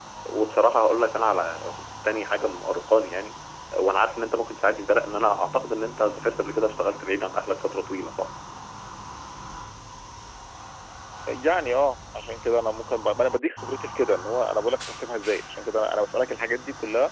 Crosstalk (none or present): none